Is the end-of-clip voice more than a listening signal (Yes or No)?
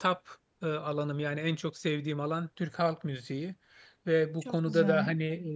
No